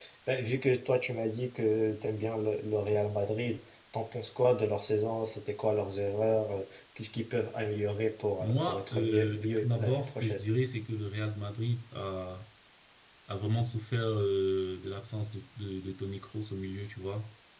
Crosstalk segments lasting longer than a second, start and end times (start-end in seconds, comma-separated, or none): 8.4-10.4